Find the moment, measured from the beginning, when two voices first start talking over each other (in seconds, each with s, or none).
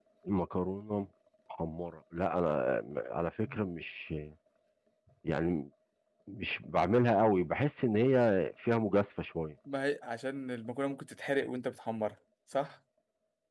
none